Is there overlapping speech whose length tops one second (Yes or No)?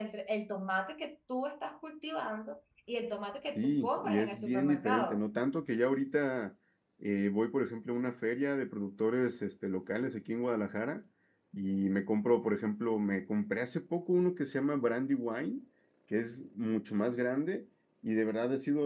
Yes